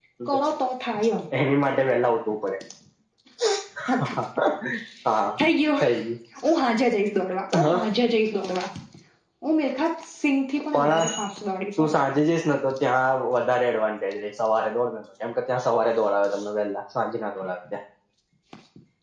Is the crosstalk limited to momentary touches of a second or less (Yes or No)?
Yes